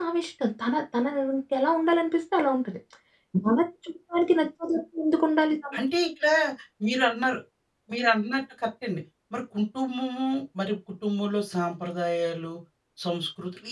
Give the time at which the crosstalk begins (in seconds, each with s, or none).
none